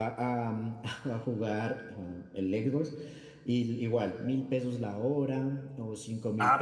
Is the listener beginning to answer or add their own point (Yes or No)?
Yes